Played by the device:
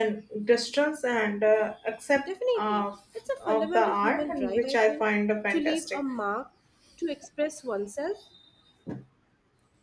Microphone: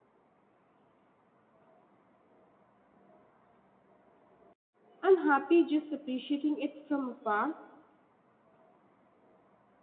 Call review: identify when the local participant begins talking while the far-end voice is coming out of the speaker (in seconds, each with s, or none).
5.0 s